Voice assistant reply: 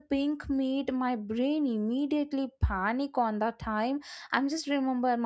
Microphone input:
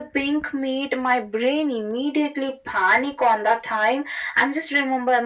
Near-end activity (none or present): none